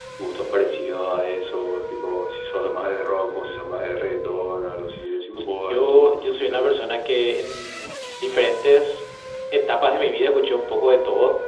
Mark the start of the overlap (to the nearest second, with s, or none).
5 s